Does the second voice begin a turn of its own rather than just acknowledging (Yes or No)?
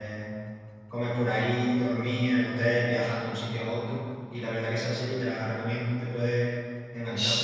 Yes